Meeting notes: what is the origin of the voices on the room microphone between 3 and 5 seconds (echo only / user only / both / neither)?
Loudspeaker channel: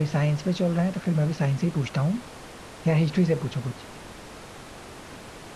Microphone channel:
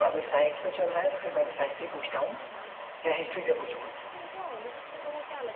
both